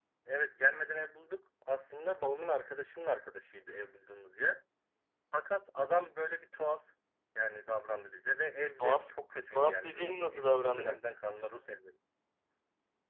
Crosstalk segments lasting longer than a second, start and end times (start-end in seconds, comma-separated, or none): 9.5-11.0